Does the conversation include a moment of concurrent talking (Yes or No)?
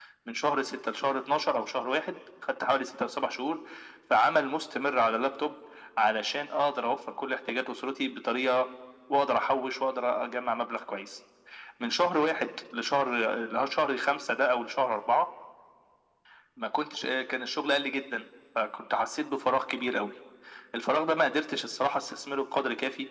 No